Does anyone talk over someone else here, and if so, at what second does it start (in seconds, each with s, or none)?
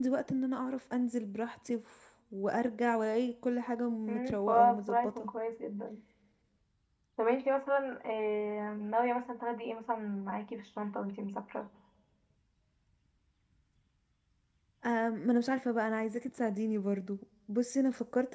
4.1 s